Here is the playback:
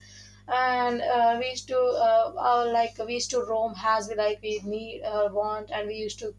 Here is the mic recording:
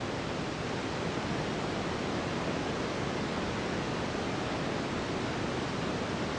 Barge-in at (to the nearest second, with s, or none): none